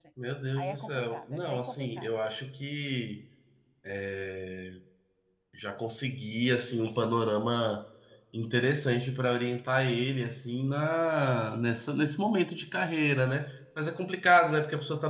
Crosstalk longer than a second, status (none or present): present